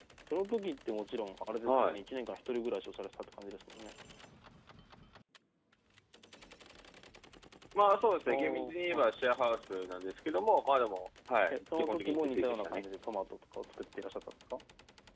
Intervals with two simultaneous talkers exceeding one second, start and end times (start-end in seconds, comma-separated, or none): 11.5-12.8